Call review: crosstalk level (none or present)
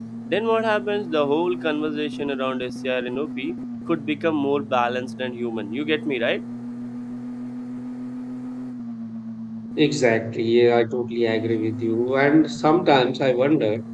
none